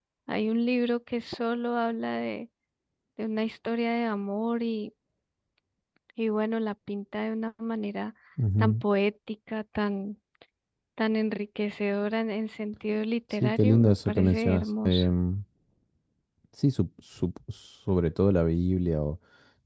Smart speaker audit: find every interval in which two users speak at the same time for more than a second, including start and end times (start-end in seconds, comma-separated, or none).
13.4-15.1